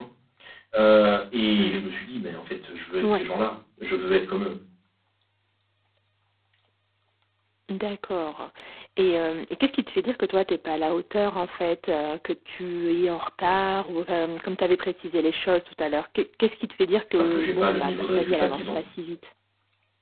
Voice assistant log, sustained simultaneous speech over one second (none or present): present